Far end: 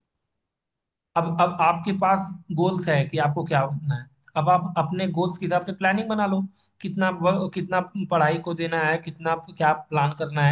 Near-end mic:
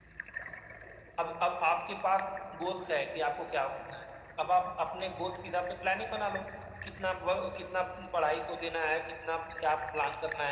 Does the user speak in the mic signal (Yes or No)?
No